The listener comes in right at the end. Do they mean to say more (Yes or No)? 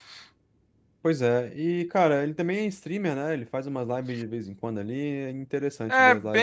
Yes